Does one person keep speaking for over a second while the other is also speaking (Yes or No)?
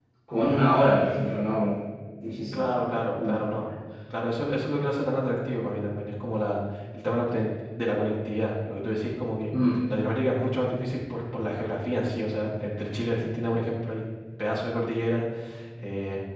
No